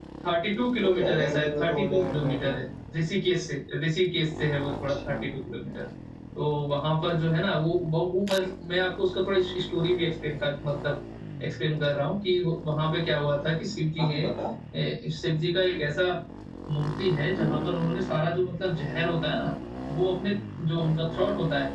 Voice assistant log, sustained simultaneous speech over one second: present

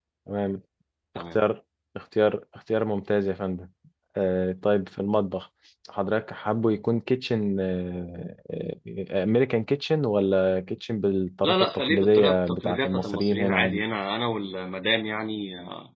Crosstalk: present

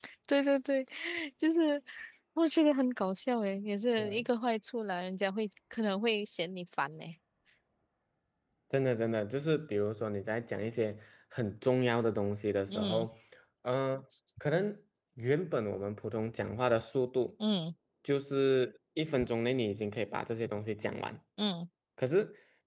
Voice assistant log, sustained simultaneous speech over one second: none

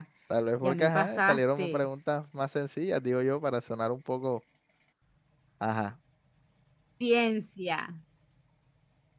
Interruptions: present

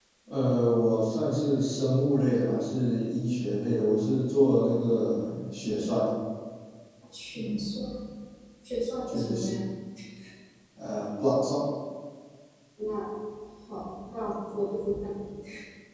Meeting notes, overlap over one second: none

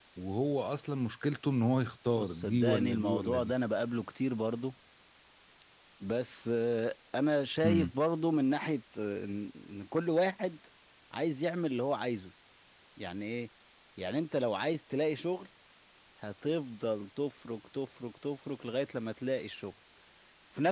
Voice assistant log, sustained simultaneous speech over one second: present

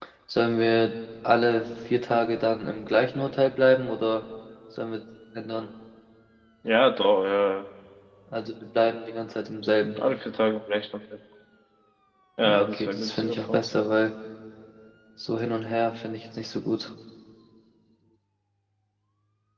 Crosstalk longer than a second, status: present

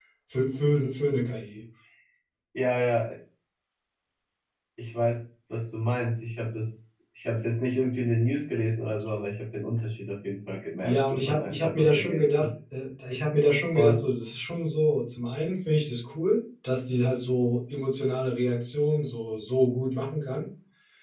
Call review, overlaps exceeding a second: present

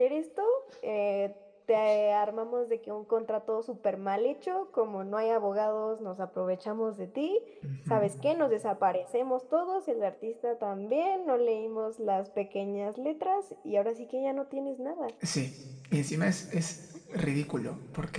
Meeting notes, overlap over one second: none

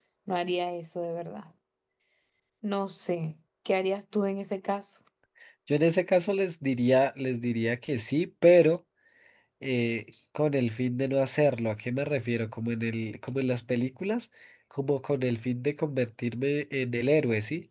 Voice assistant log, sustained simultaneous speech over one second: none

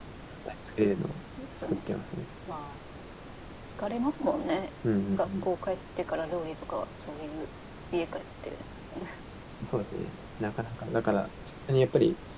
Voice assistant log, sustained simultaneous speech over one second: none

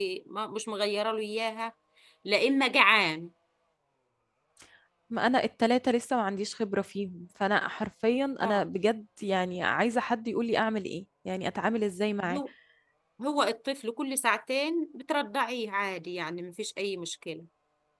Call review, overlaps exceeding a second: none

